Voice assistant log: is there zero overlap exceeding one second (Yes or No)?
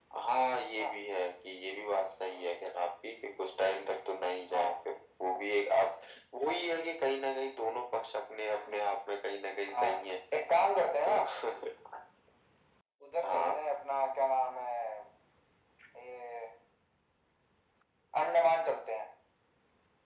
Yes